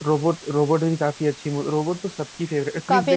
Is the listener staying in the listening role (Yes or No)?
No